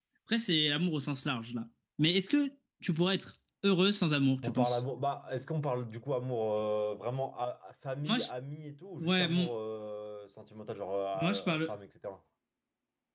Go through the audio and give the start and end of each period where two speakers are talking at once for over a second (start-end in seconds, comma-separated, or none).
none